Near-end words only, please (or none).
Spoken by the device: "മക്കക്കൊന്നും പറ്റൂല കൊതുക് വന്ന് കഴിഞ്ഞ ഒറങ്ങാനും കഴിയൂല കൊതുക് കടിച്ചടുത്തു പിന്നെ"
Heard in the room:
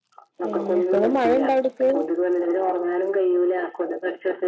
പിന്നെ ഇപ്പഴും മഴ ഇണ്ടോ അവിട്ക്ക്